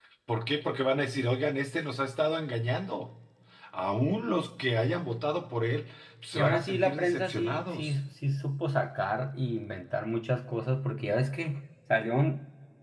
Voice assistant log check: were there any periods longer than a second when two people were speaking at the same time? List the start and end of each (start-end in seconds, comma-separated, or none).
6.3-7.9